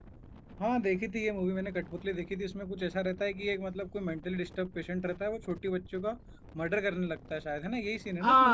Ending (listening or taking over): taking over